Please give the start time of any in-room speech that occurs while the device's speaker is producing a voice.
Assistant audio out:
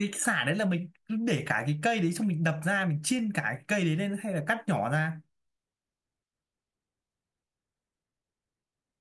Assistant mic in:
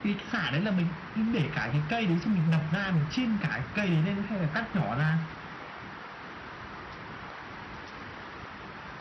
none

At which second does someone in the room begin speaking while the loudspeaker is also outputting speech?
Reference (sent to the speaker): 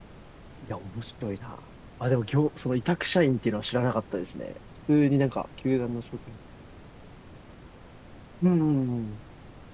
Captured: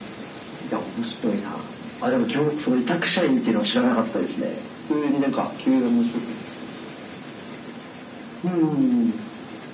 none

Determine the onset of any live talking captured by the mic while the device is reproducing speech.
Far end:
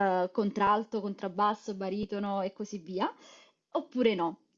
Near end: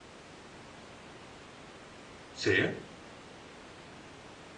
2.3 s

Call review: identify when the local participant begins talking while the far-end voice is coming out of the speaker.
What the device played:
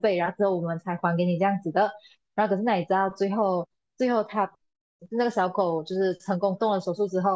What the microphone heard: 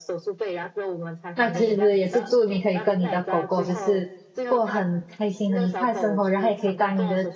1.3 s

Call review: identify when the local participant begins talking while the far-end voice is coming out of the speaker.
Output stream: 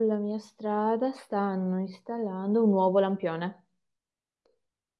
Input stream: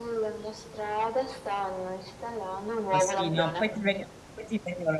2.9 s

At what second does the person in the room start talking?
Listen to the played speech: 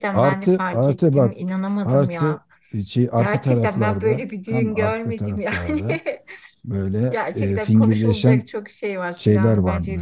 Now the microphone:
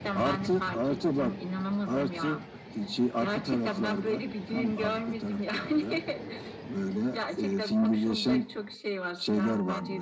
none

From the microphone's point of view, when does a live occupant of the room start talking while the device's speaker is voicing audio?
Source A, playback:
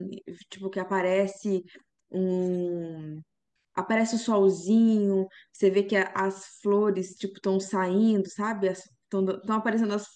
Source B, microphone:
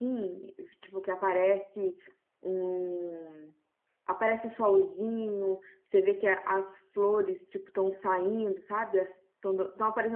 none

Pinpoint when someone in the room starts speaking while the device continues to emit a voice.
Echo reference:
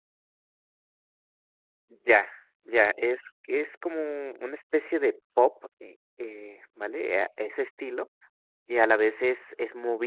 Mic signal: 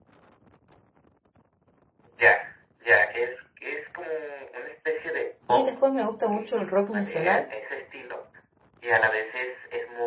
5.5 s

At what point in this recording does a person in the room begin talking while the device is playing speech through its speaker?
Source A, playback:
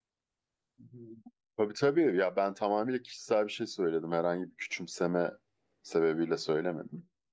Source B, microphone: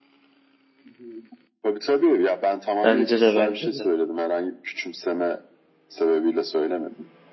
2.8 s

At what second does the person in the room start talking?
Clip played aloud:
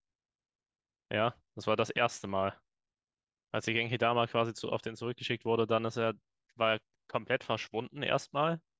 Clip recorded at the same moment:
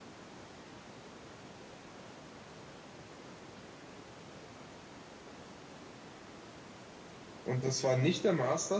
7.4 s

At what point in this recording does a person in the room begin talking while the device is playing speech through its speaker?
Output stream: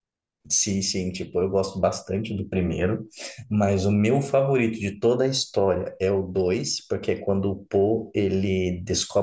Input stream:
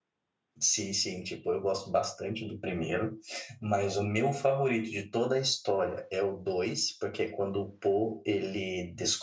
none

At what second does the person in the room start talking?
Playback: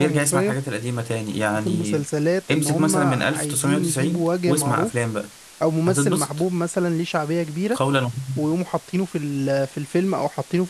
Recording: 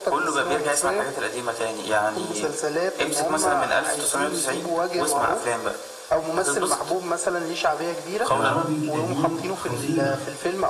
8.3 s

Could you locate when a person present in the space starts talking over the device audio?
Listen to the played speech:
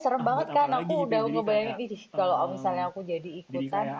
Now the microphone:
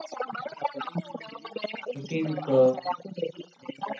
1.8 s

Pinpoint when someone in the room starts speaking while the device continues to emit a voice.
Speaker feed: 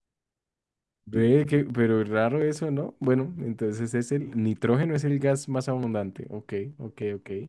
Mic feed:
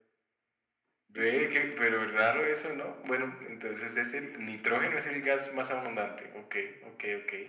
none

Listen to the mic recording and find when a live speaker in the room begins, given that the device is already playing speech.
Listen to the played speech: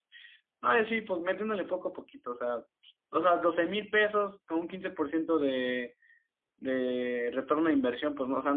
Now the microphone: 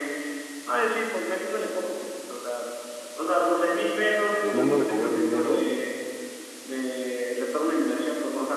4.4 s

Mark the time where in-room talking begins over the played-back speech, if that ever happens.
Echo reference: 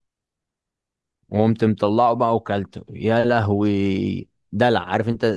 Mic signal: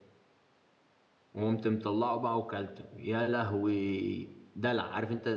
none

